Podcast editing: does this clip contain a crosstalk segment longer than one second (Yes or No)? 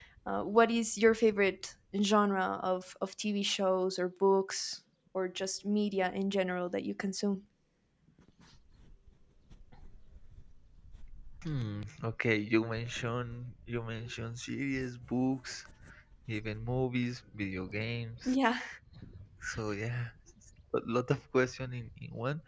No